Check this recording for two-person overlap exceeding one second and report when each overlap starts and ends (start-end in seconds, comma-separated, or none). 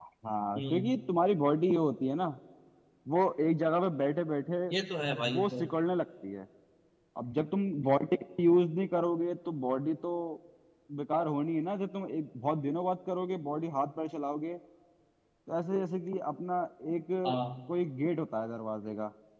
none